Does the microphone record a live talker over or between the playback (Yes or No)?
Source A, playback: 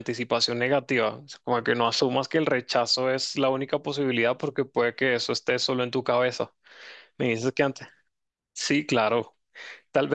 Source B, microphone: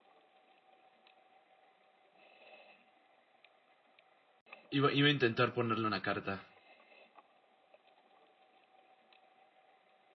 Yes